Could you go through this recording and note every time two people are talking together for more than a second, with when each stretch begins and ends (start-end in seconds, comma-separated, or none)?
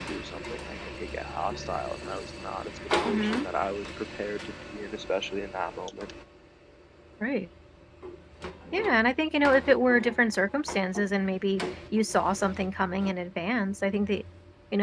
none